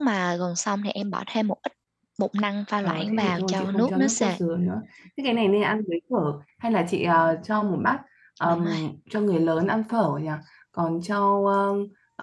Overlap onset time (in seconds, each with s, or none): 2.8 s